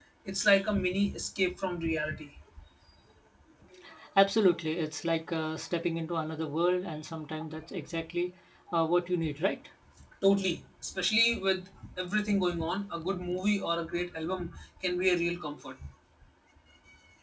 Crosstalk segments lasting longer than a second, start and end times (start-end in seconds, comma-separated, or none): none